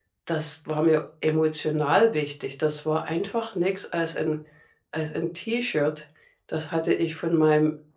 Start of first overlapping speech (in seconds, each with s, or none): none